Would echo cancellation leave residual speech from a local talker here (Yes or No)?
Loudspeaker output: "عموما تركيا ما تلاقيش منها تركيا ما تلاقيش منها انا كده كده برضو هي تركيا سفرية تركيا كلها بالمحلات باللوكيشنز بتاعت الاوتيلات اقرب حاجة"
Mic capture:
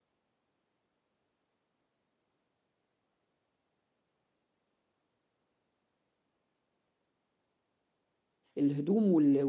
Yes